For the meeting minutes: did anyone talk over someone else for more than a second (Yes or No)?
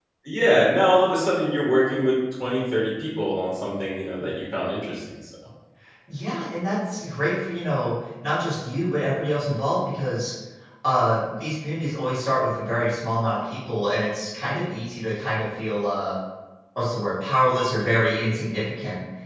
No